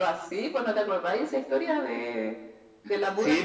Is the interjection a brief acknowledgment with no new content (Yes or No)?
No